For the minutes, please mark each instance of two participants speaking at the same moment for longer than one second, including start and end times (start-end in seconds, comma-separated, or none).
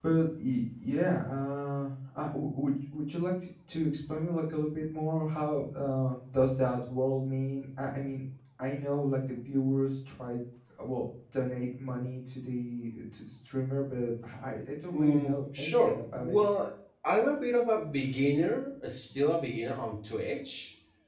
14.9-16.4